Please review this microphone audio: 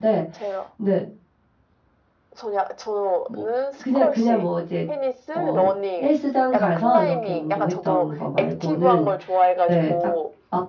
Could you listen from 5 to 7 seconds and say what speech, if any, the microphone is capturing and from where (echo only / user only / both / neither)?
both